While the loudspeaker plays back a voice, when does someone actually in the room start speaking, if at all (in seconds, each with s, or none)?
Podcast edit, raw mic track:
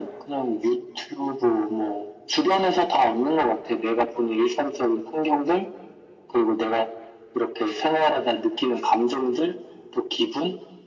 none